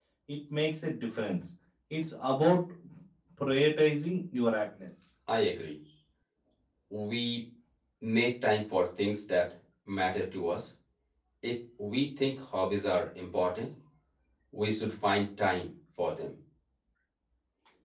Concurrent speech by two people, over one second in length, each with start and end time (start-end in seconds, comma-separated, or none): none